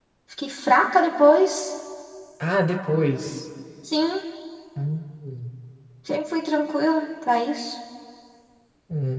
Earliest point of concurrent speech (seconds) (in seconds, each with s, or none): none